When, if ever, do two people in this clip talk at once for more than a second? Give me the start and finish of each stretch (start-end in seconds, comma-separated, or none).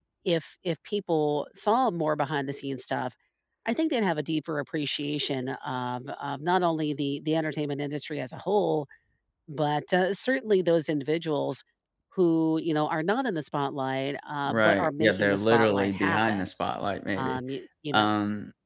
14.5-16.5